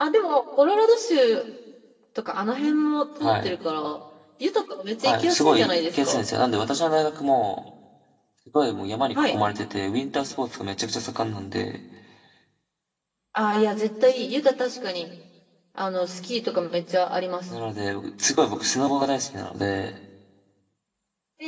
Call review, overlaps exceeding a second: present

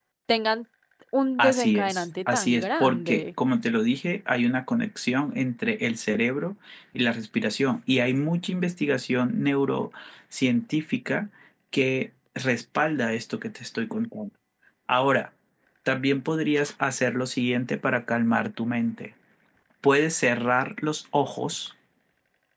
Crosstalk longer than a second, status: present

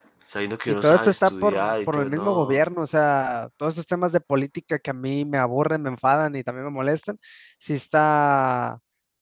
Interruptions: present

